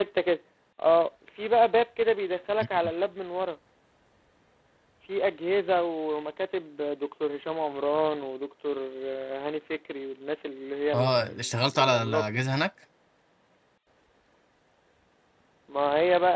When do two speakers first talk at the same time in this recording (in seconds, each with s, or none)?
10.9 s